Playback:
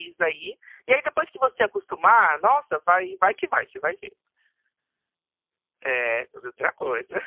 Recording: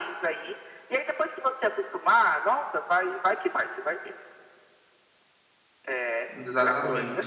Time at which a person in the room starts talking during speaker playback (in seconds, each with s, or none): 6.3 s